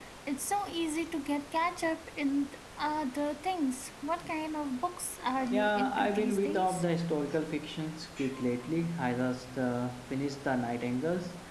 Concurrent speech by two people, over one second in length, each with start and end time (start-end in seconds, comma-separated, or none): 5.5-6.8